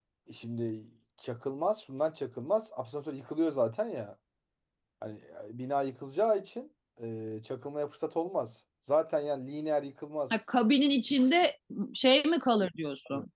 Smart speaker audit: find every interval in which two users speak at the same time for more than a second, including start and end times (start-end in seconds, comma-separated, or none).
none